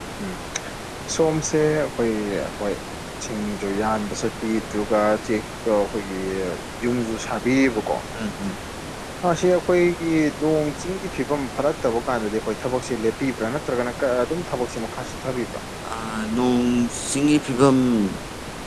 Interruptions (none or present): none